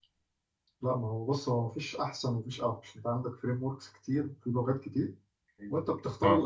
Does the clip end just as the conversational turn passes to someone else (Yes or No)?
No